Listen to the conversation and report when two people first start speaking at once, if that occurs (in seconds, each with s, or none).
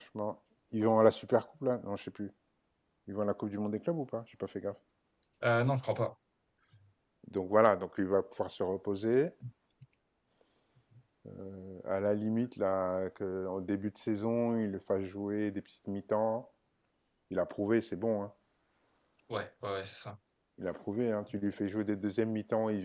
none